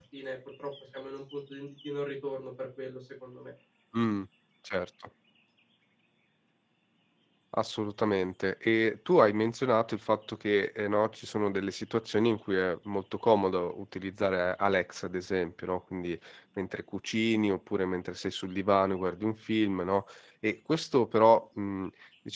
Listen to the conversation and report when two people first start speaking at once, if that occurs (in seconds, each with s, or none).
none